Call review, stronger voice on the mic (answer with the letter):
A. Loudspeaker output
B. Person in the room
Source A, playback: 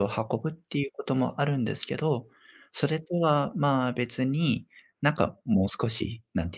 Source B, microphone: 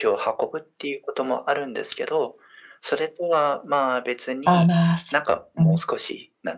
B